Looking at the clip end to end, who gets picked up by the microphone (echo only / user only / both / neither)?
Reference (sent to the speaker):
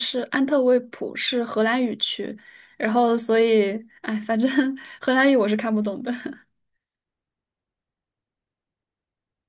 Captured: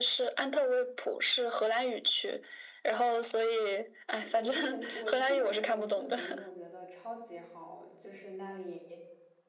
both